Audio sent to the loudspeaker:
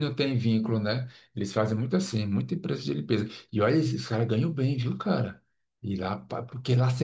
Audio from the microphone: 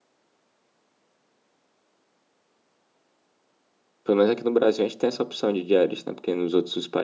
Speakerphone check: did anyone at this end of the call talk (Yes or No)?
Yes